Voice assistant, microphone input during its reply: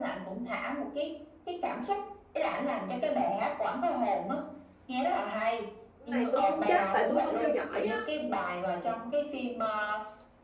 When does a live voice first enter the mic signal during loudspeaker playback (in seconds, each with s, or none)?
6.0 s